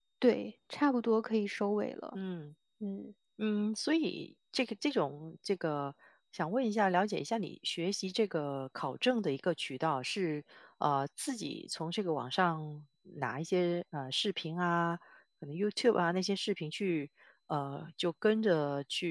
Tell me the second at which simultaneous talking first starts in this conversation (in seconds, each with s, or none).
none